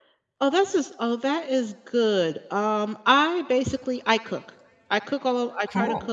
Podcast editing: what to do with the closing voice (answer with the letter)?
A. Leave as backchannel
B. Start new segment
A